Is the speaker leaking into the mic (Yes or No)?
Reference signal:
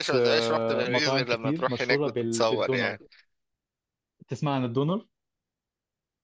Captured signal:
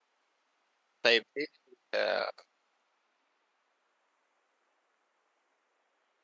No